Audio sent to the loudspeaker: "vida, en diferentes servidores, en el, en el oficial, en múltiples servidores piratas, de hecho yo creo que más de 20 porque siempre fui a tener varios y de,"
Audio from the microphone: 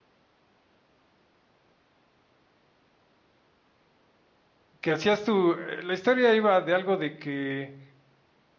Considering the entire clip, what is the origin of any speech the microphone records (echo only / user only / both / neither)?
user only